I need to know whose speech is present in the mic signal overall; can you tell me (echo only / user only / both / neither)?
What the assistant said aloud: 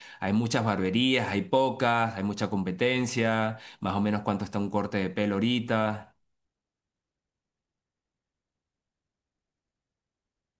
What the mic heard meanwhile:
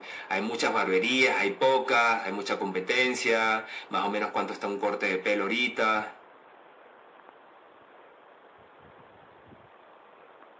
echo only